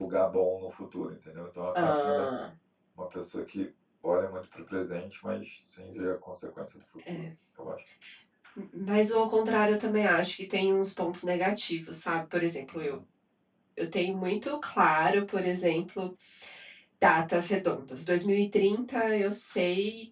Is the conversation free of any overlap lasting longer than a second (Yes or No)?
Yes